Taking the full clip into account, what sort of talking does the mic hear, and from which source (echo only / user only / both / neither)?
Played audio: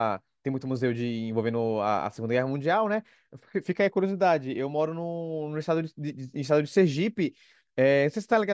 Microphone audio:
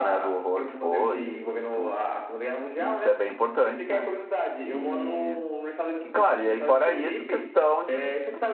both